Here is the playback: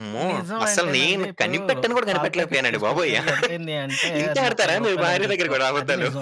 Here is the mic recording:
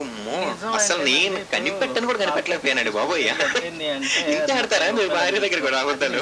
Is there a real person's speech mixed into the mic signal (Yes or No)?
No